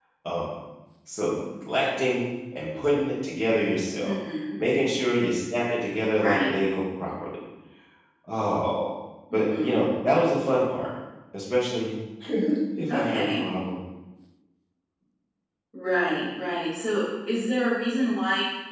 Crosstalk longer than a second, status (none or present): none